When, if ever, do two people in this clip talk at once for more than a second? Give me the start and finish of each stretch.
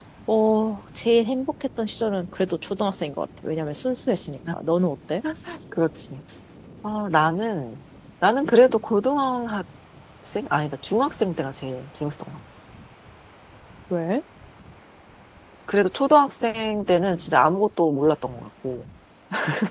none

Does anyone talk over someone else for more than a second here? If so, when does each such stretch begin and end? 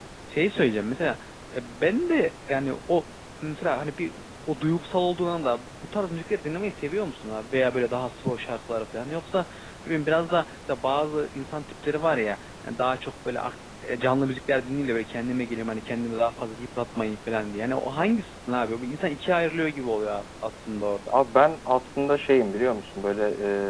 none

